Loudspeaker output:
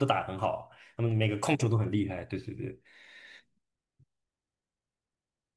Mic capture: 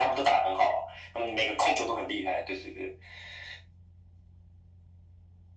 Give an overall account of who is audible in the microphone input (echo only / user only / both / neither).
echo only